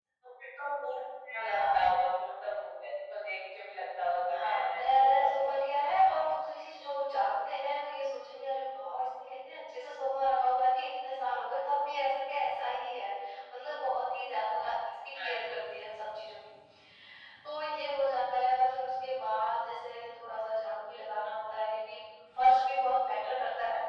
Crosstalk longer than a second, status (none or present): present